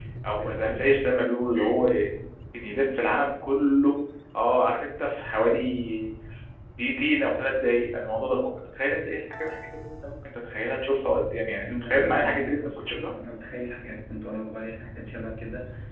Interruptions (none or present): present